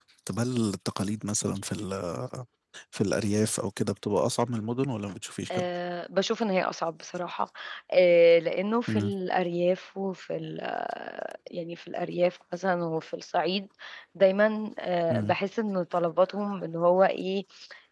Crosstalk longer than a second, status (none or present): none